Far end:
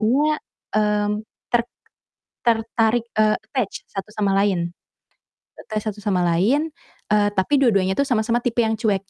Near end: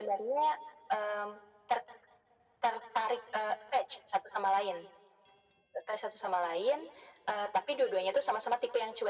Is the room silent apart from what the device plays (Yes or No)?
Yes